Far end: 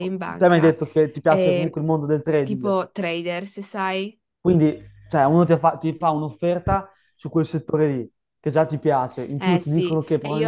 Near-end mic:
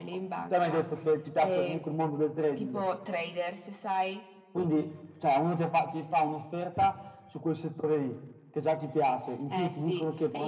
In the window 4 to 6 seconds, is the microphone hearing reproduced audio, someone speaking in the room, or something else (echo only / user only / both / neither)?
echo only